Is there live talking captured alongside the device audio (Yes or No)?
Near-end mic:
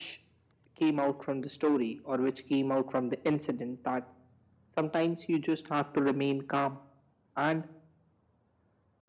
No